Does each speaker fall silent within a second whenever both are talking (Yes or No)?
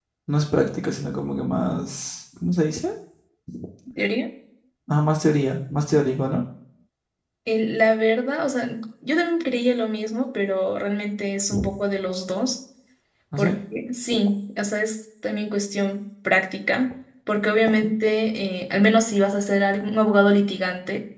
Yes